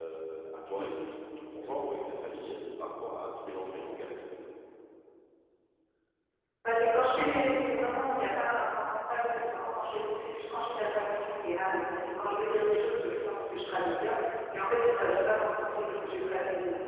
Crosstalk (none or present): none